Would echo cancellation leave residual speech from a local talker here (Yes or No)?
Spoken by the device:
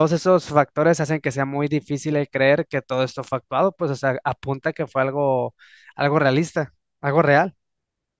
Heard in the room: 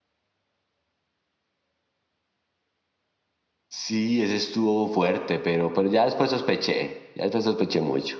Yes